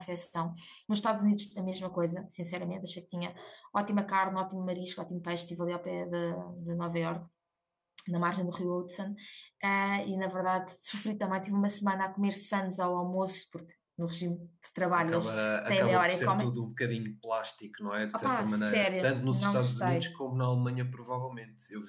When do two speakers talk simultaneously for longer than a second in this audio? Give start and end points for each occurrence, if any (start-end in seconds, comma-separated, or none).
14.9-16.5, 18.1-20.1